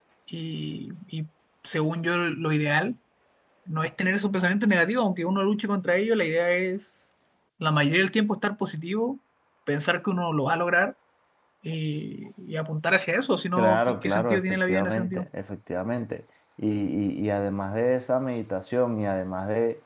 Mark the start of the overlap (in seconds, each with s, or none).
13.6 s